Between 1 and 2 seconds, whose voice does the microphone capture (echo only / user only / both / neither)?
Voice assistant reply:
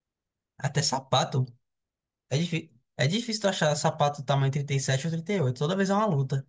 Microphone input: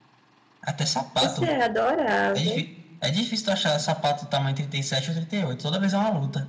both